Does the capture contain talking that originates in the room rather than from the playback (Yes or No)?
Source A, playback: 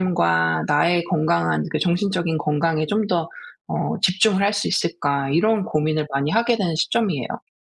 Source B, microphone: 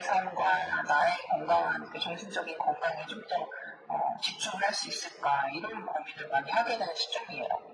No